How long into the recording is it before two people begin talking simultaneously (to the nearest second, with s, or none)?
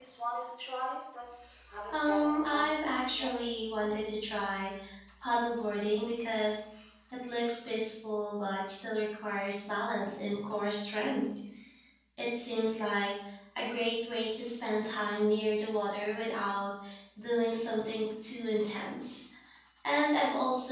2 s